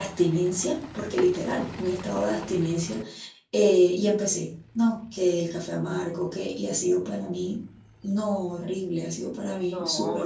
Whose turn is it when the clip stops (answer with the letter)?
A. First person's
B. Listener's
B